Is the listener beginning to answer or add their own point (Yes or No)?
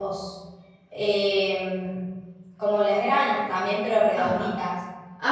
Yes